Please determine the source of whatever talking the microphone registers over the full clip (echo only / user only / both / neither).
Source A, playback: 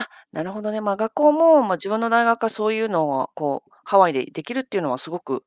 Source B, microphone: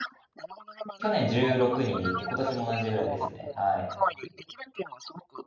both